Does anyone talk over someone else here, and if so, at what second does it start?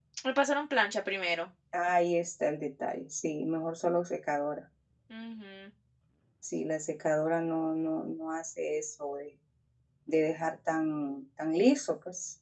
none

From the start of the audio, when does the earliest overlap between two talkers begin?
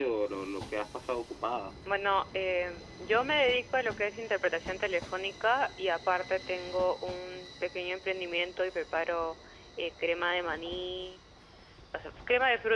none

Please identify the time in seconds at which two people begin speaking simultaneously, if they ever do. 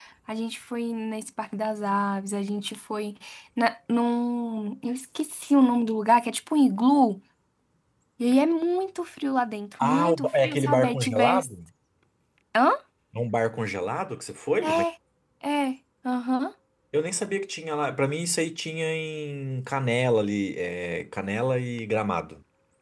9.8 s

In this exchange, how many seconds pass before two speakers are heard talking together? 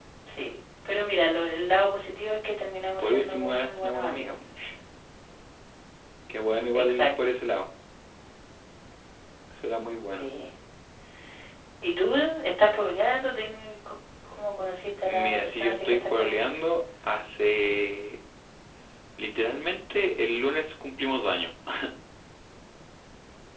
3.0 s

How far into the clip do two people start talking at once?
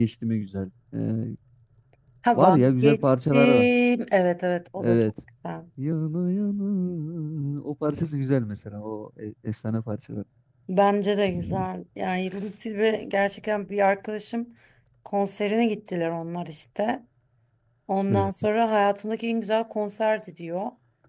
2.4 s

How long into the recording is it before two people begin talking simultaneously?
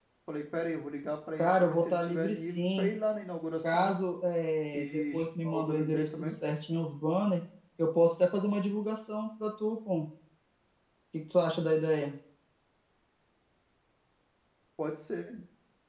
1.4 s

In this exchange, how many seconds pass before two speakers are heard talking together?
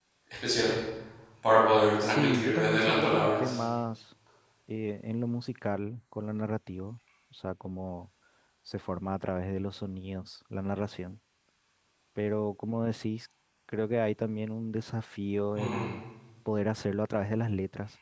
2.0 s

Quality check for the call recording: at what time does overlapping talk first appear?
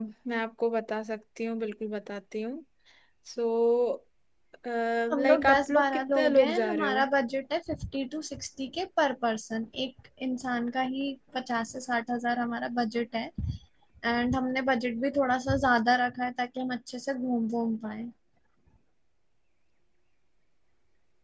5.1 s

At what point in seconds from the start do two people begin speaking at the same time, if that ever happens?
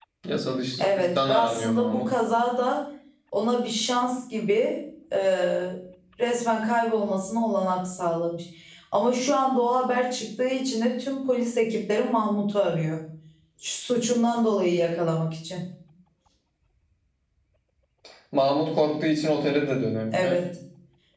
0.8 s

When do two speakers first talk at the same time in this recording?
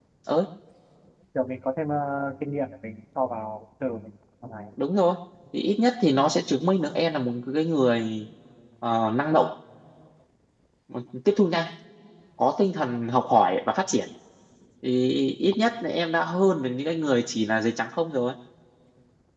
none

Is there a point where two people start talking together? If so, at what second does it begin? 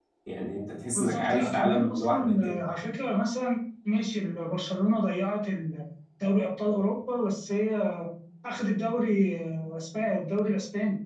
0.9 s

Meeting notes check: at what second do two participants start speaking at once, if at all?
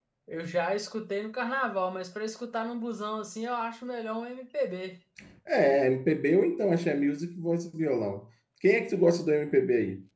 none

